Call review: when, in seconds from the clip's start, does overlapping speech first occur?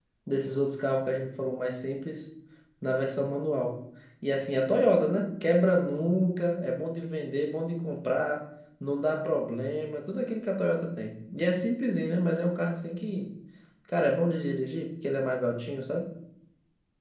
none

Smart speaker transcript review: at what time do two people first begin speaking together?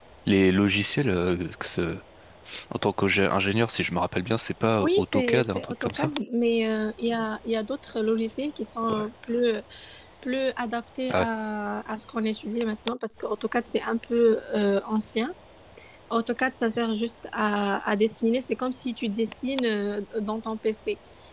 4.8 s

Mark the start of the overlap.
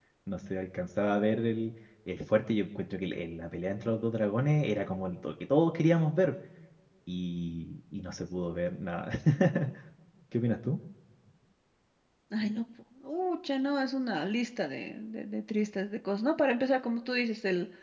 none

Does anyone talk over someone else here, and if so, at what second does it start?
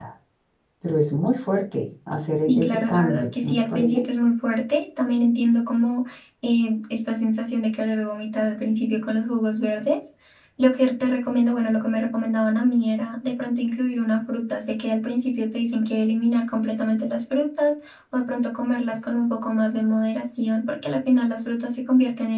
2.5 s

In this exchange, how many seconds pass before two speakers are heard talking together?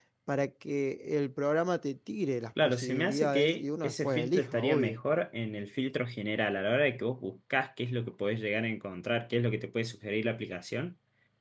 2.6 s

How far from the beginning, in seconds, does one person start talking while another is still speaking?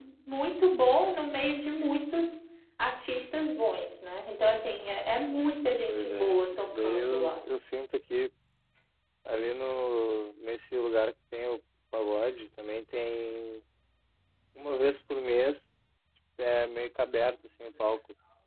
5.9 s

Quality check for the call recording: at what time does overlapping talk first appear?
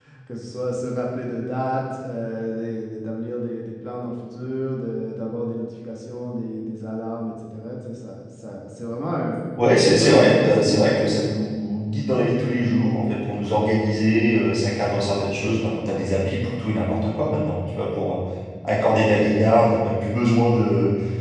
10.0 s

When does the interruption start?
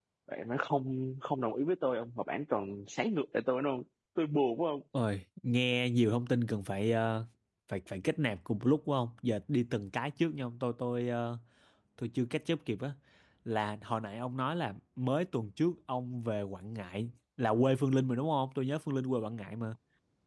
none

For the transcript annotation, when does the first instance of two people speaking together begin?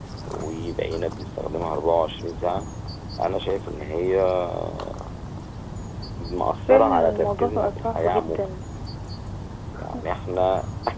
6.7 s

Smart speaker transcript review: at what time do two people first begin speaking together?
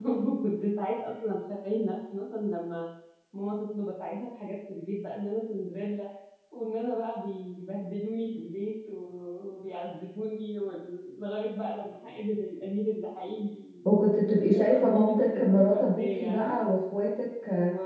14.5 s

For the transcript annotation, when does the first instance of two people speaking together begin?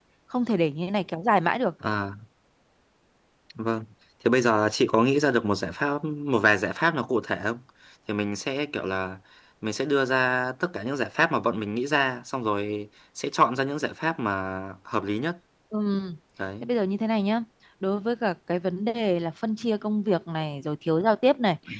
none

